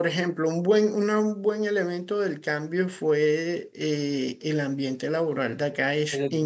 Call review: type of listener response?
listening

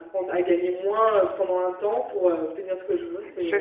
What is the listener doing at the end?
taking over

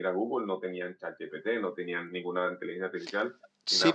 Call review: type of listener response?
taking over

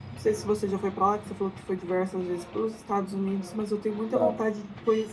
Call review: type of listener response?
listening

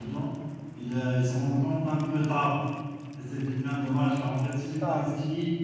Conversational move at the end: listening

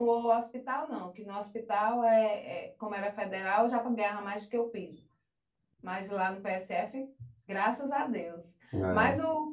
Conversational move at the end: listening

